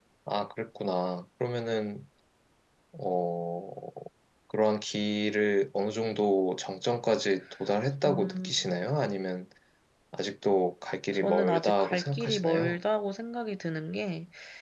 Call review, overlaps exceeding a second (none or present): present